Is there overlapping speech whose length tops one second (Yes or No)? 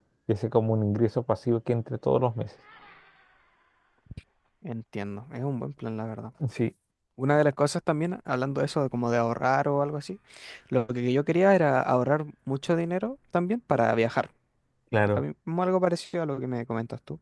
No